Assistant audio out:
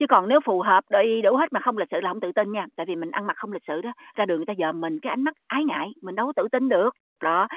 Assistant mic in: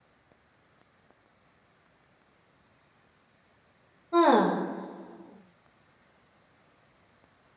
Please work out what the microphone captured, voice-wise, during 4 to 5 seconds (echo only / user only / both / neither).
user only